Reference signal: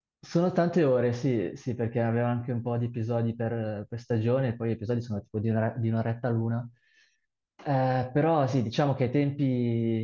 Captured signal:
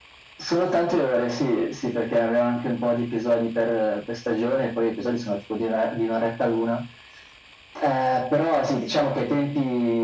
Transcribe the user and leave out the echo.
none

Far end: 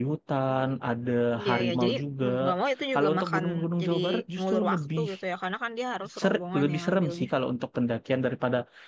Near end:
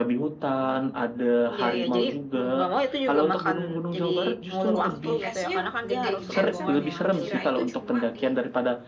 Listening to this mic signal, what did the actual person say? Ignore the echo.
kontur esnya gede gitu ya? Maksudnya ke- kirain tuh cuma di

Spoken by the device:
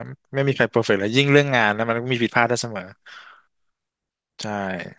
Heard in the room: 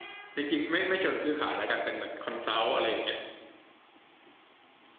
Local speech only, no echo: จริงๆไม่ไม่เชิงซื้อขายแล้วกันเป็นเหมือนคอนซัลท์อะไรอย่างเงี้ย

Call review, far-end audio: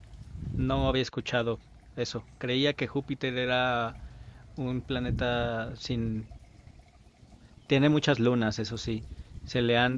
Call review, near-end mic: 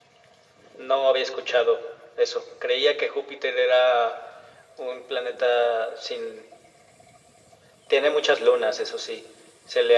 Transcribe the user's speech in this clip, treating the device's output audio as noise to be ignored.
none

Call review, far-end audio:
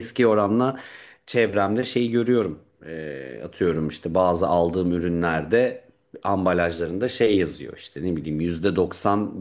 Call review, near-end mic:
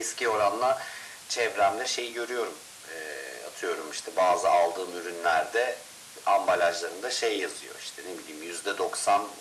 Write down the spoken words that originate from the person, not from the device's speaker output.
none

